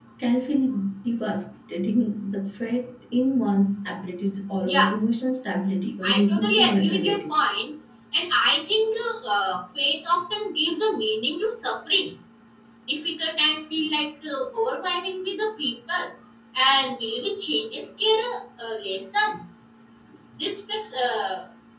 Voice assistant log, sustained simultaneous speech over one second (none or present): present